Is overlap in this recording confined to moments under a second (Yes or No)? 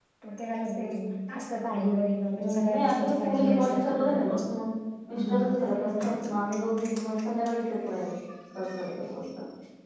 No